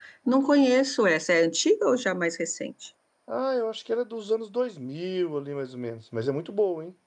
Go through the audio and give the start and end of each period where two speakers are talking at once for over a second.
none

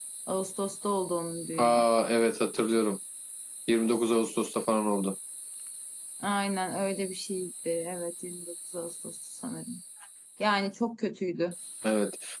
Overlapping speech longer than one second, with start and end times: none

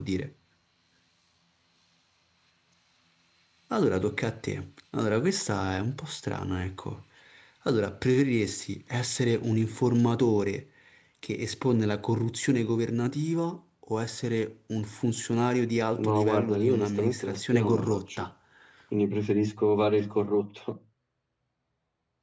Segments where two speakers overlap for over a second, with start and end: 16.1-18.3

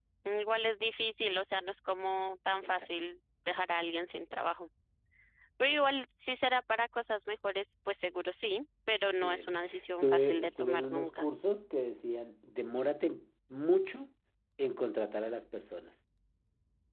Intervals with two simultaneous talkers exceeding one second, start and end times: 9.9-11.3

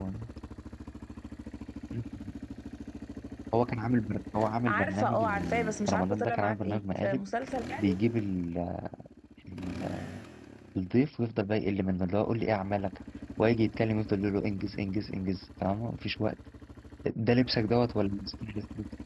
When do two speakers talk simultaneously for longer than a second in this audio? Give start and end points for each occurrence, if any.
4.7-7.2

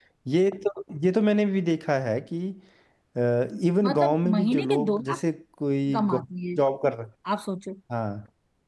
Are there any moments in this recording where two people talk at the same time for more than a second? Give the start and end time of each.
3.8-5.2

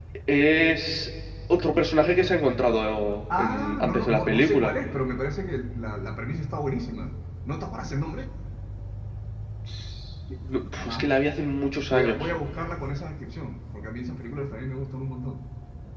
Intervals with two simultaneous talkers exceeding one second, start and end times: 3.3-4.8

